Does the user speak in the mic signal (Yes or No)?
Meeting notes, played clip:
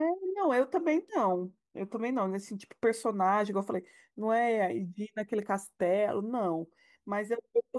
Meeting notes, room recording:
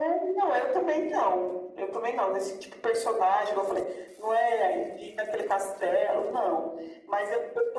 No